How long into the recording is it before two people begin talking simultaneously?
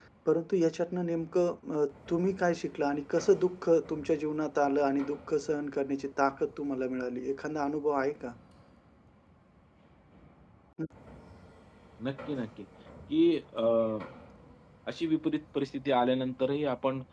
none

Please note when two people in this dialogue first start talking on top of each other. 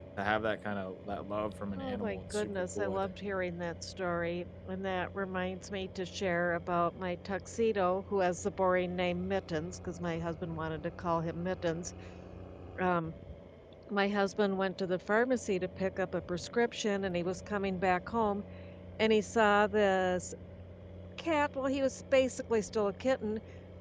1.8 s

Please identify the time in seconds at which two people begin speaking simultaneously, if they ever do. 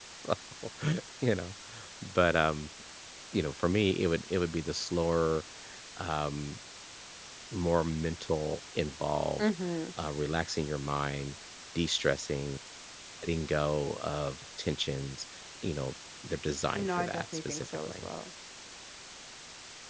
16.8 s

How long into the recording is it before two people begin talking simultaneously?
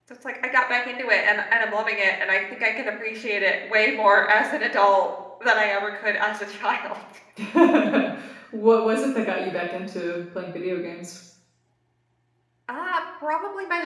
none

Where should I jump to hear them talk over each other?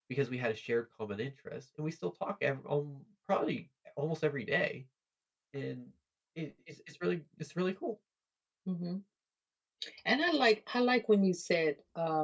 none

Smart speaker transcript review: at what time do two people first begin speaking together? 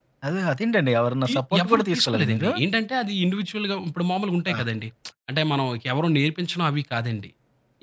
1.3 s

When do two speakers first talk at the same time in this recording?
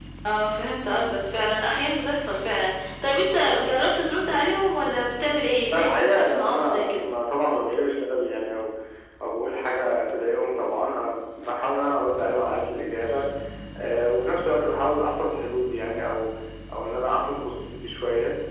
5.7 s

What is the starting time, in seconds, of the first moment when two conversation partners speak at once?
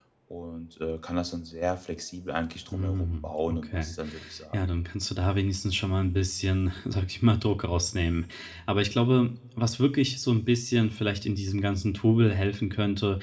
2.7 s

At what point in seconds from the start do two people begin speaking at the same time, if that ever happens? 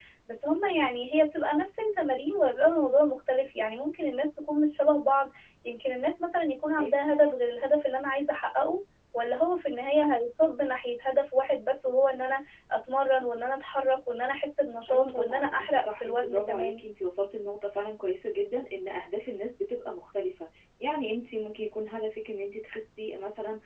14.9 s

